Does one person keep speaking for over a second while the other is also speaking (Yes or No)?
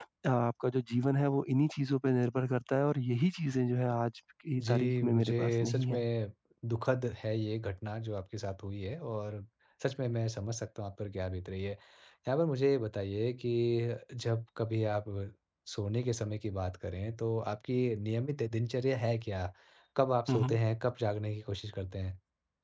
Yes